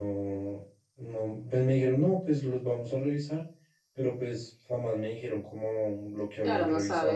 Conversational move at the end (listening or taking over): taking over